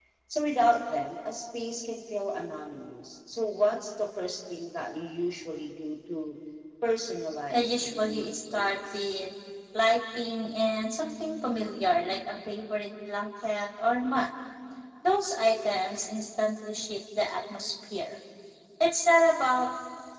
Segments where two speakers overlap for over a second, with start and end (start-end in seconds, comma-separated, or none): 7.5-9.1